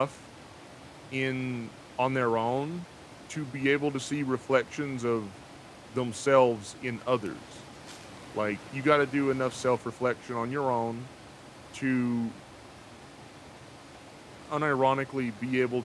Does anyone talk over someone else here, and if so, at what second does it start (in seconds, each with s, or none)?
none